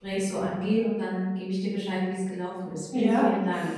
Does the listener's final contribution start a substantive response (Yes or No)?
Yes